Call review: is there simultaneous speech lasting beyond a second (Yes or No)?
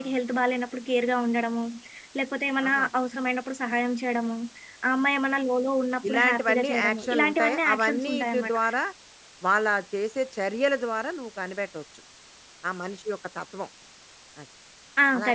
Yes